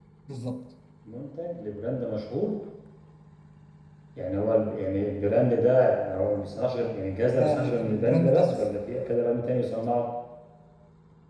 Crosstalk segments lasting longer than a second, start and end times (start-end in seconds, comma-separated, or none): 7.3-8.6